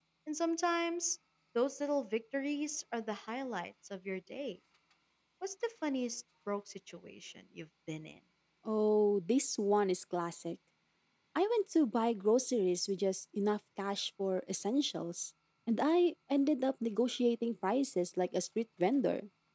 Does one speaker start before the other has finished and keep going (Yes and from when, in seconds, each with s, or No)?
No